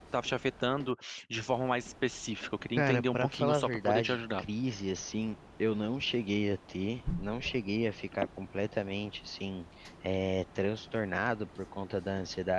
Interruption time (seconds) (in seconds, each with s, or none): 2.8 s